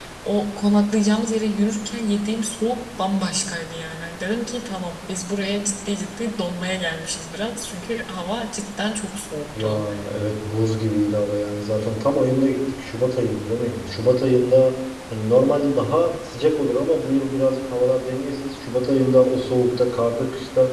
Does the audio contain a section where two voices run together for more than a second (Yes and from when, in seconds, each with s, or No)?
No